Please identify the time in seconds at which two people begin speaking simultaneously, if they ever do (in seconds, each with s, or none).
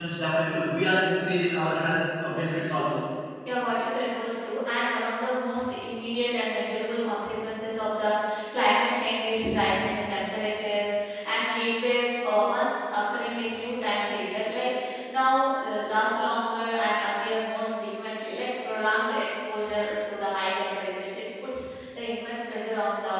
none